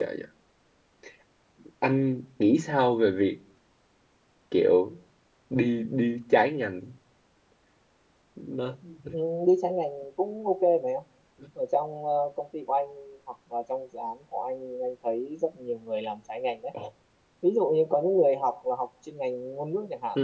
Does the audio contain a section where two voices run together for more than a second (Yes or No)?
No